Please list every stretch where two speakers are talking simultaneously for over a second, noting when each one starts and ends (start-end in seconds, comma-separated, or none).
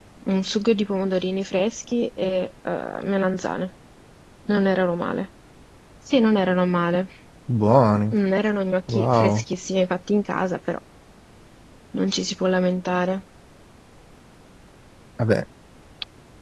none